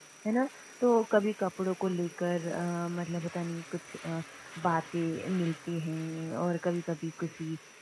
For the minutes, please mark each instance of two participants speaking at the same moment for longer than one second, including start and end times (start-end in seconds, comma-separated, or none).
none